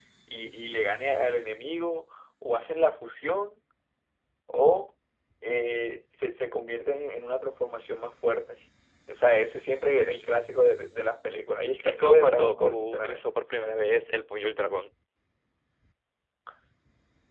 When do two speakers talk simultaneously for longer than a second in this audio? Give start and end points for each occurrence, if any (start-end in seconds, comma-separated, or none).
11.8-13.2